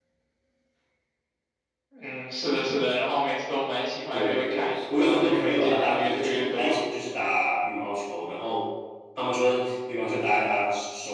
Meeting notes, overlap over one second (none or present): present